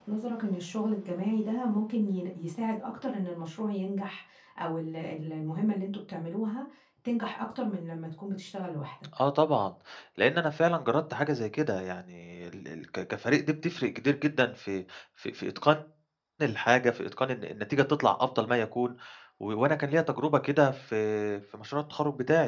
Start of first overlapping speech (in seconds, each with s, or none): none